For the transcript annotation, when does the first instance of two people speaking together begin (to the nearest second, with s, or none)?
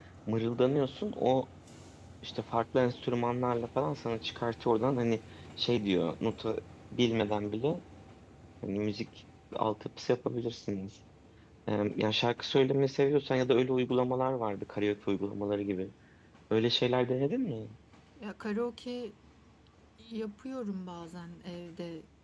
none